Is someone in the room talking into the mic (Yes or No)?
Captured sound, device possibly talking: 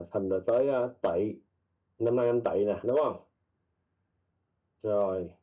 No